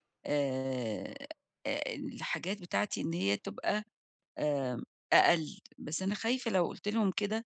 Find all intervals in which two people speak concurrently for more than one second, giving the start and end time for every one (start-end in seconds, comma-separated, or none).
none